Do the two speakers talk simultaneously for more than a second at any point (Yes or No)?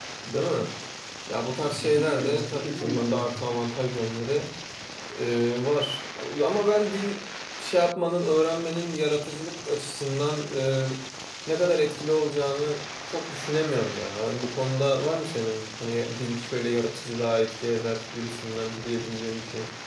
Yes